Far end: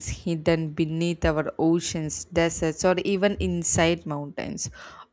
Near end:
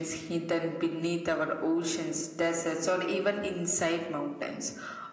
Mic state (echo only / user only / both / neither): echo only